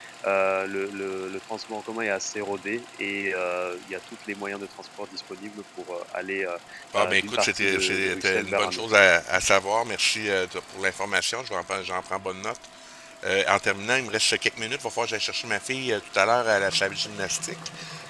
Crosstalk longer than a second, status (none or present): present